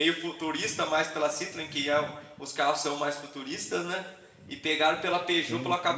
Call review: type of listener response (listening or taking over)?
listening